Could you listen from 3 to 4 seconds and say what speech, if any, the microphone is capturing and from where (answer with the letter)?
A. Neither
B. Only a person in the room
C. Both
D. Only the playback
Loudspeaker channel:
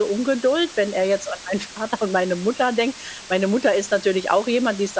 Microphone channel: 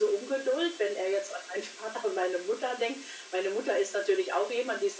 D